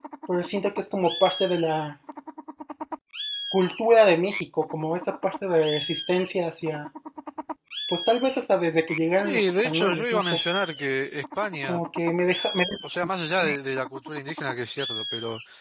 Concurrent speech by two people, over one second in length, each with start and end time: 9.2-10.4

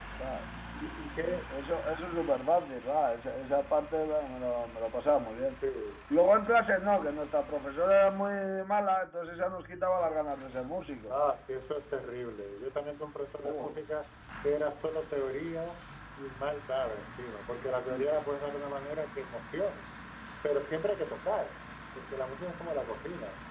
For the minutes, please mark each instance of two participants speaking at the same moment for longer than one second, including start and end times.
none

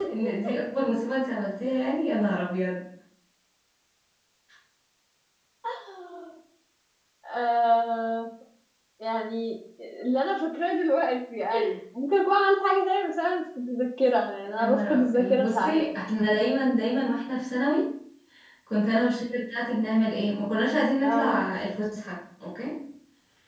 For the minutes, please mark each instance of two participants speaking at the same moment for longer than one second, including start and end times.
14.6-15.8

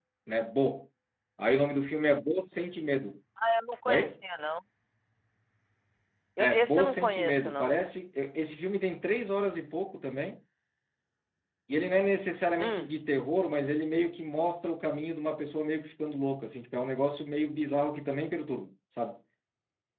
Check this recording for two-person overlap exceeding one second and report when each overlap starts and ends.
6.4-7.8

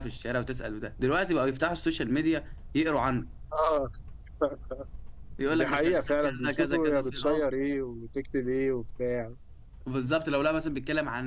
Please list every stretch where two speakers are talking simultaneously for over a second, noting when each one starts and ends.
5.4-7.4

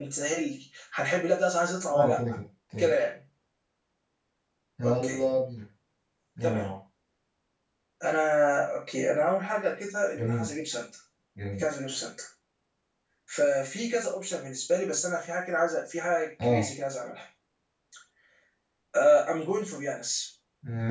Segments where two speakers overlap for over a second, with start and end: none

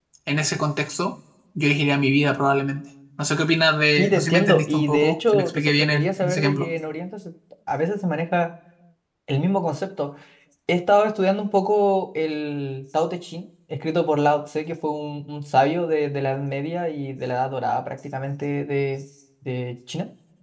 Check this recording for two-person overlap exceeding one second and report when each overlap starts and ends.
4.0-6.7

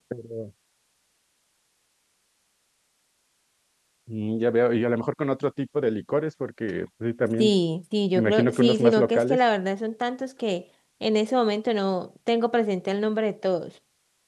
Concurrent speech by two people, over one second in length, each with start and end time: 8.2-9.4

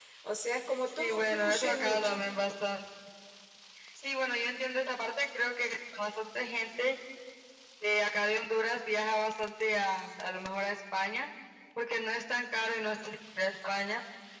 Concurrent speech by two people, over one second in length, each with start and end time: 0.9-2.3

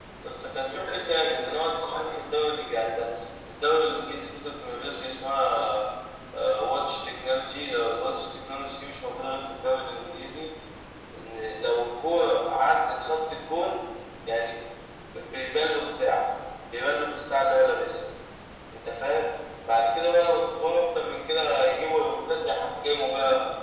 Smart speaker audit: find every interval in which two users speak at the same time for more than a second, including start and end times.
0.5-2.3

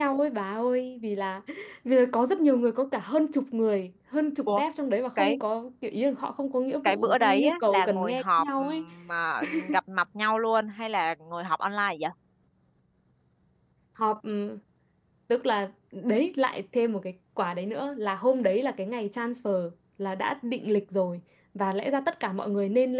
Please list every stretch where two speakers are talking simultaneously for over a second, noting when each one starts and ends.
6.8-8.8

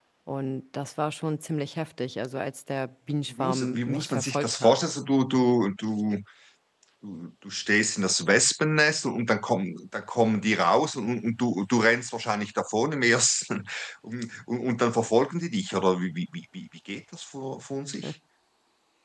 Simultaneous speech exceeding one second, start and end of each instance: 3.3-4.8

